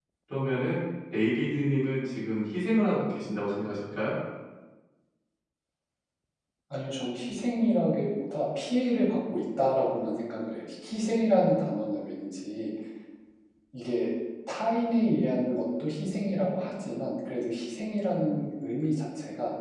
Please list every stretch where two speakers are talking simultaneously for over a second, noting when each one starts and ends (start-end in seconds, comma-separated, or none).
none